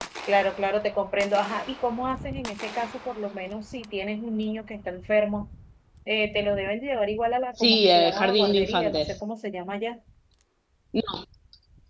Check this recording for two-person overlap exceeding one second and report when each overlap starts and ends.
7.6-9.1

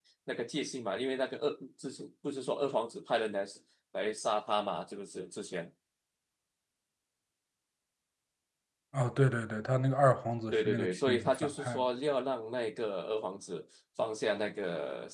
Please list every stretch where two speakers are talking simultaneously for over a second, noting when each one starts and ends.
10.5-11.8

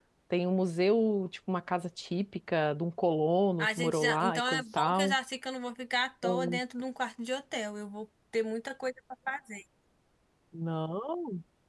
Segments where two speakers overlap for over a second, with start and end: 3.6-5.1

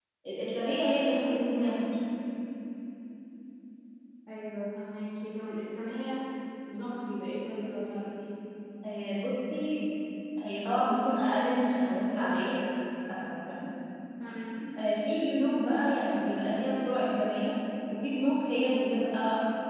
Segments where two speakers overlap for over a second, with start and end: none

